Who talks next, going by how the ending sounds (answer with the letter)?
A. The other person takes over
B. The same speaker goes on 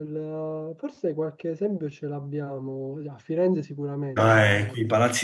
A